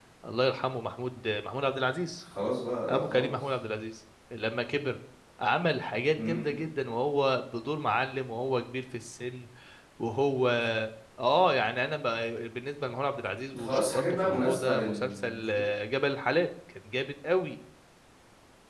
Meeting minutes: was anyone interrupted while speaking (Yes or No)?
Yes